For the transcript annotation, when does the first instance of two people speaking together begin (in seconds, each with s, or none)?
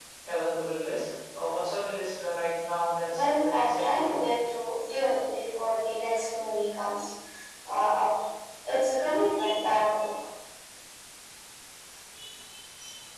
3.0 s